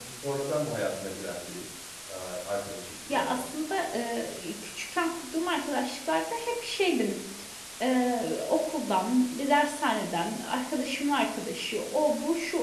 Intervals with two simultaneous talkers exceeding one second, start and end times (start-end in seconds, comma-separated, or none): none